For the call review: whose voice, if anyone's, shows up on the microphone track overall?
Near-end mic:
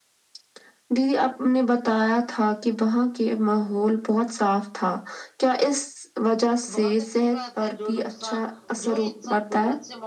both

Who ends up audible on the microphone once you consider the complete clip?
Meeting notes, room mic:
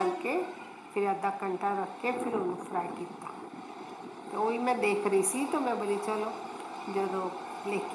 echo only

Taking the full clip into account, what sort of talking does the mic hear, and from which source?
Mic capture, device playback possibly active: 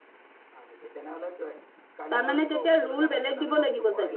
both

